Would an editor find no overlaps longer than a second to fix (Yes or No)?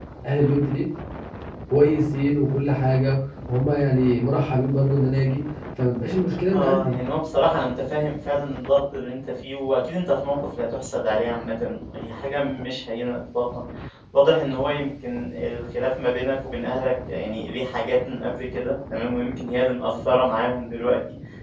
Yes